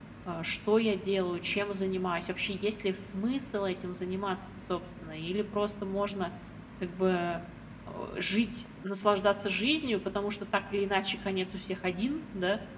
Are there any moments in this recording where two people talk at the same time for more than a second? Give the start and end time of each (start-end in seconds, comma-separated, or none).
none